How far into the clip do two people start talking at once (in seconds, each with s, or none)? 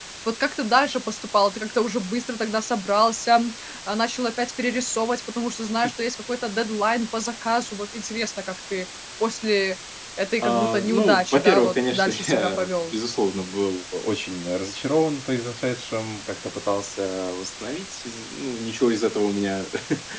10.4 s